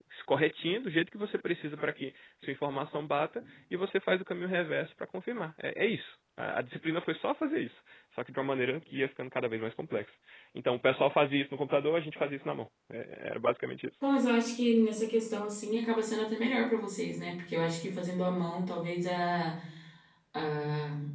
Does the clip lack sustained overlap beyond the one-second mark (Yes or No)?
Yes